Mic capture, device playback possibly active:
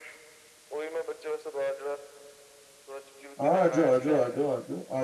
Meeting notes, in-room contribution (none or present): present